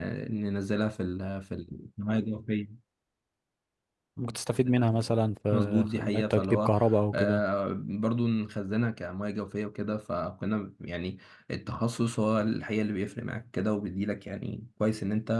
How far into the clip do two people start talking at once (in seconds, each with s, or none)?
5.5 s